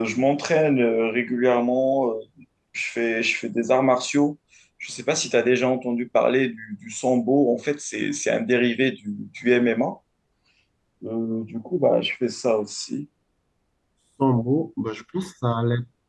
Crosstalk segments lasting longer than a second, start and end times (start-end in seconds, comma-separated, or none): none